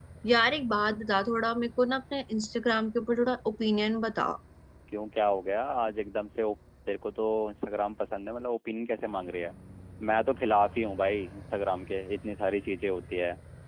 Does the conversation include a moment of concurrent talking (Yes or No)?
No